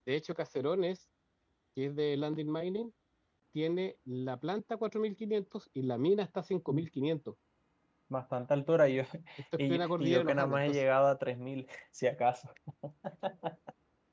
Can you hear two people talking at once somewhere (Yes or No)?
Yes